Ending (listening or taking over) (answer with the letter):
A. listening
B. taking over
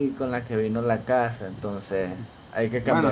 B